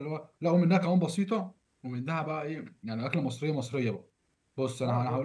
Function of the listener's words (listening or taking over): listening